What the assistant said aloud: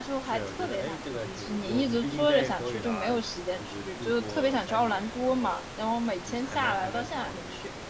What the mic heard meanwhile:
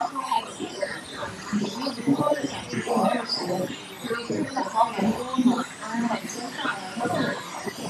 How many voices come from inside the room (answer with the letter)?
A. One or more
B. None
B